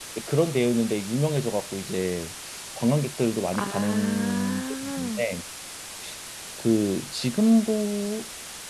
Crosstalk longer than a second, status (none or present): present